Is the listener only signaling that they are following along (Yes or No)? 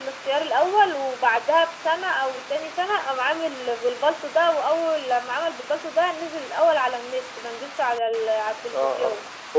No